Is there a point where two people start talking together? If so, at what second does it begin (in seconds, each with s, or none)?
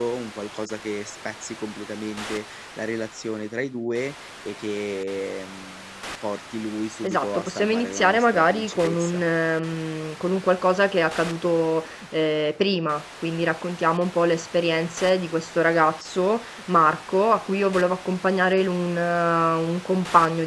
7.0 s